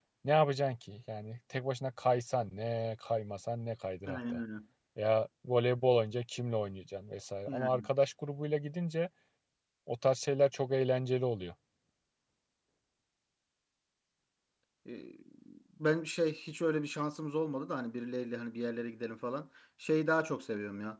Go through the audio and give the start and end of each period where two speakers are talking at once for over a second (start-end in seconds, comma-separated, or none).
none